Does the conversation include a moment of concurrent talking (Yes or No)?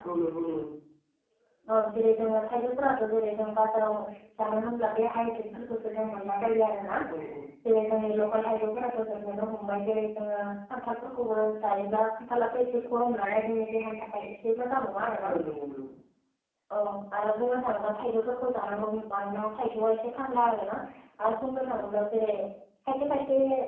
No